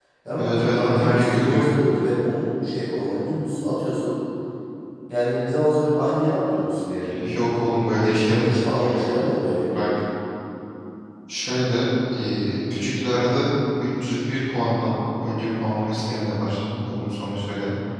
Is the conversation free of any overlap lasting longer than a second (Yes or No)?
No